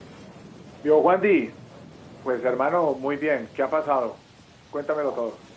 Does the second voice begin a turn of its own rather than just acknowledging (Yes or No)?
Yes